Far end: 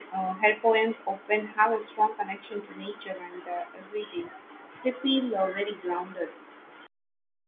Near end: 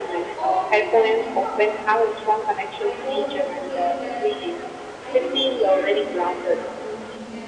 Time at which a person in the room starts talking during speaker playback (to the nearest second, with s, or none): 0 s